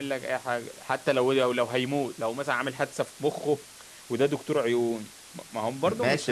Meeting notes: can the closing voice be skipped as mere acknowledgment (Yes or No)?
No